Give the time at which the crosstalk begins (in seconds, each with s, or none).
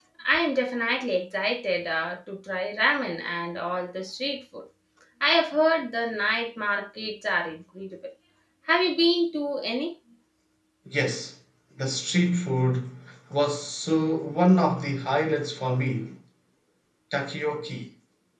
none